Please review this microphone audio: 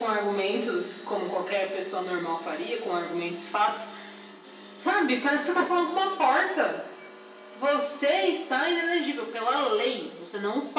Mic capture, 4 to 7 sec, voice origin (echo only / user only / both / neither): echo only